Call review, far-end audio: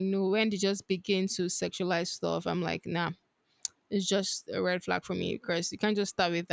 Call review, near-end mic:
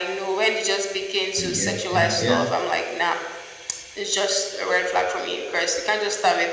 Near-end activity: present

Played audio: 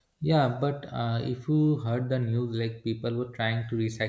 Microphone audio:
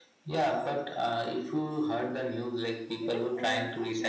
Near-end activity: present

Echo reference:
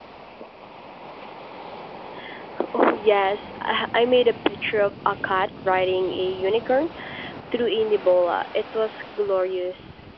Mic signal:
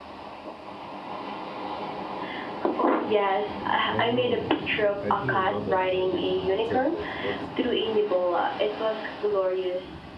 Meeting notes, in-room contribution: present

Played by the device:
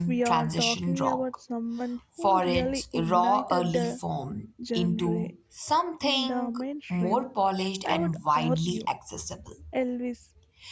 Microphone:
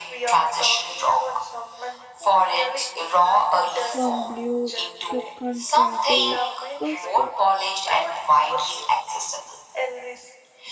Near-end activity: present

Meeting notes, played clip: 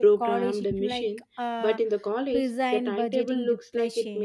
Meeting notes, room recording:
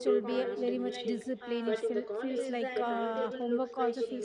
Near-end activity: present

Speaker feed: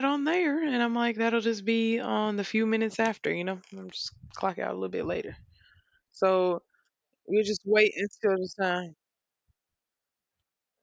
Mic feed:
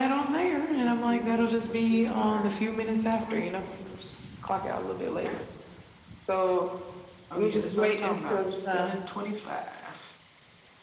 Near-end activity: present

